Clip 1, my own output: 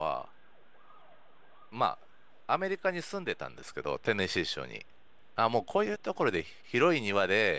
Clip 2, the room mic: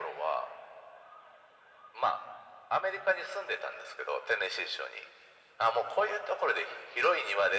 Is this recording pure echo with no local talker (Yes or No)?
Yes